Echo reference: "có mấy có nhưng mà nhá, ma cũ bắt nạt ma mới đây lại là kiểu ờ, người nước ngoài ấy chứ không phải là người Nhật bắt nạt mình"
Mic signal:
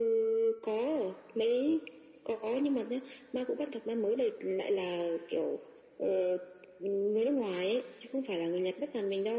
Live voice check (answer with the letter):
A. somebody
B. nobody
B